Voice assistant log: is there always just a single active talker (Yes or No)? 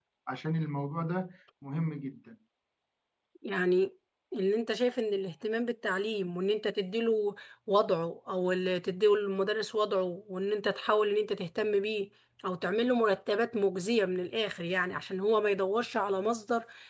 Yes